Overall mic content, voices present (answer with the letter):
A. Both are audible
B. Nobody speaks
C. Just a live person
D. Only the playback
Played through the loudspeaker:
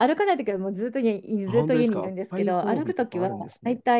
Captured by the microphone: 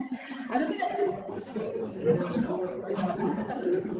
A